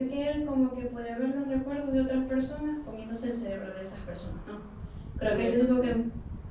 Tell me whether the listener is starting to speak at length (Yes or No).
No